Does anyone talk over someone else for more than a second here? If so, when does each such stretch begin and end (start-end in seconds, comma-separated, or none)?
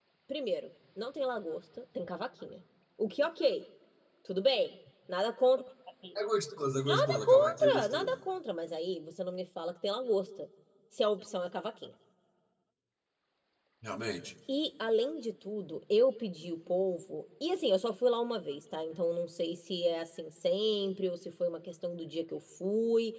6.8-8.2